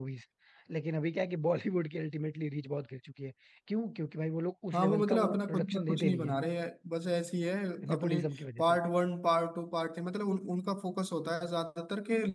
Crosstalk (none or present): present